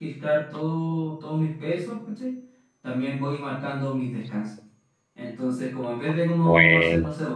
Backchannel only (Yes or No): Yes